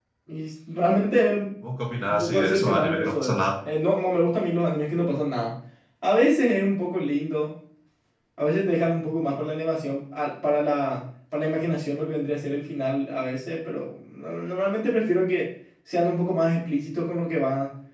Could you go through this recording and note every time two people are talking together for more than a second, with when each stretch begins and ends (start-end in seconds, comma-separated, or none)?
2.1-3.4